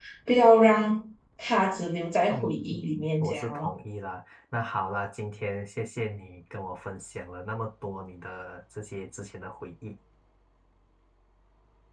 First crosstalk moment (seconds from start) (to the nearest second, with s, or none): 2 s